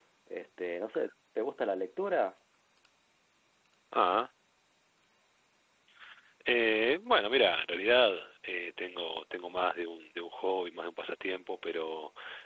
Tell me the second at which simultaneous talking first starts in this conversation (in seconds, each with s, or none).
none